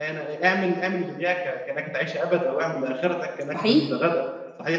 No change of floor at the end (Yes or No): Yes